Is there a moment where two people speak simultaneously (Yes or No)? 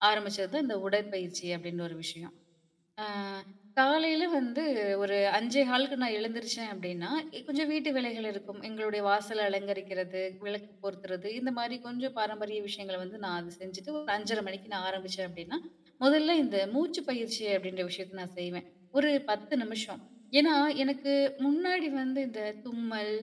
No